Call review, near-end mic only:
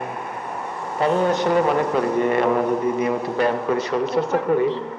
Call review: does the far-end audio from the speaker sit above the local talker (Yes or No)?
Yes